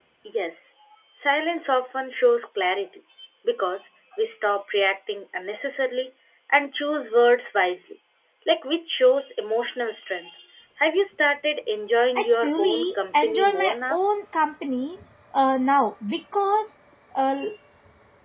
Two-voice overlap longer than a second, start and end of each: 12.2-14.0

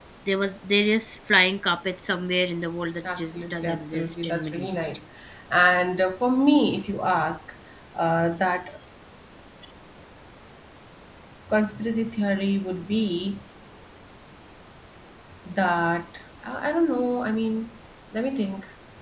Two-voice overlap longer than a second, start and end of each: 3.2-4.9

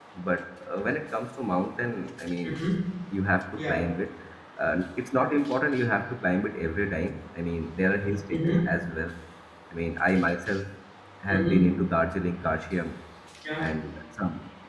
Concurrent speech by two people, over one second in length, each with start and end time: none

